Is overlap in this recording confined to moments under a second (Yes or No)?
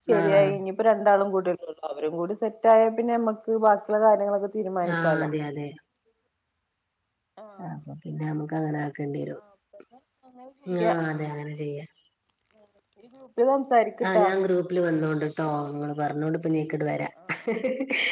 Yes